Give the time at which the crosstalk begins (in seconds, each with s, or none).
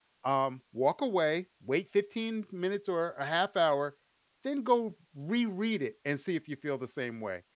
none